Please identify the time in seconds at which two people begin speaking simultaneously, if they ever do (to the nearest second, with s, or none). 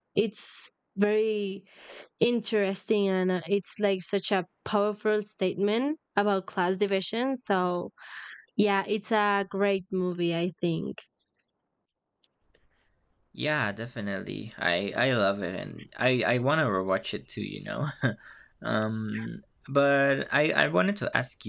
none